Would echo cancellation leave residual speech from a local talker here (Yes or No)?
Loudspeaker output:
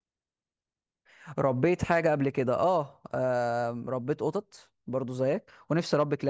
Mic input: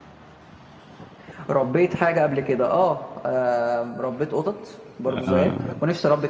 Yes